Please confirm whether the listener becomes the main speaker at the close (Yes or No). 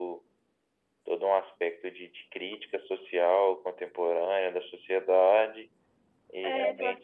Yes